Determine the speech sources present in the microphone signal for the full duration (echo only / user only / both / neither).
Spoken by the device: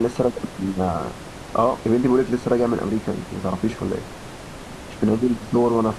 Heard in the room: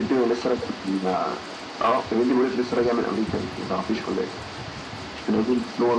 echo only